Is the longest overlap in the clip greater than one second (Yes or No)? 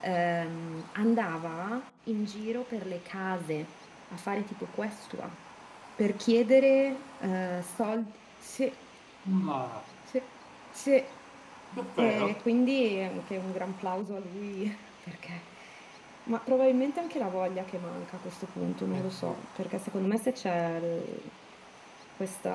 No